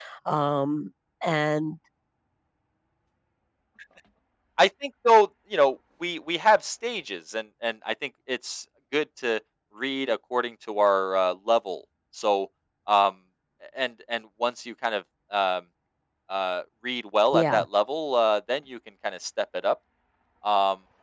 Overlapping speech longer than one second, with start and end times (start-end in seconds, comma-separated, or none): none